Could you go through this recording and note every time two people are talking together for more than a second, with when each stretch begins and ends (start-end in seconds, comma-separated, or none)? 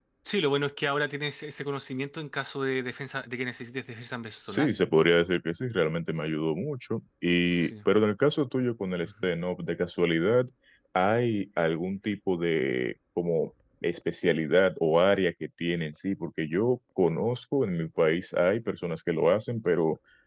none